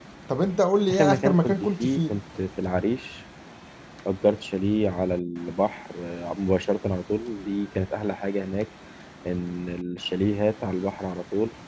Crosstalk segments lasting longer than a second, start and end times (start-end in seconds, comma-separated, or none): 0.9-2.2